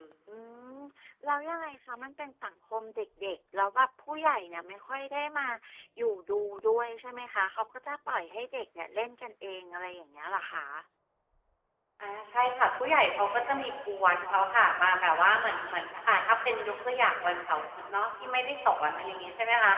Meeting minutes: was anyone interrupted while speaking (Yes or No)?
No